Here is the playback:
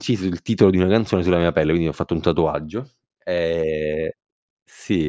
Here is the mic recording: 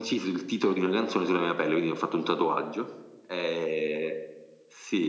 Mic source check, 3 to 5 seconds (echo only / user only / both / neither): echo only